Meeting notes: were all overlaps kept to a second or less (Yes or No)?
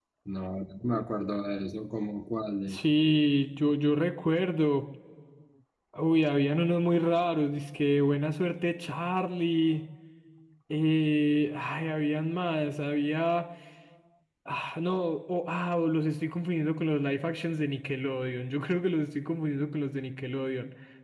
Yes